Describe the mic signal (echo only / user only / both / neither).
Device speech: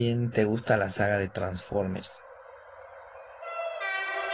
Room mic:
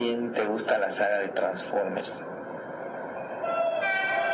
echo only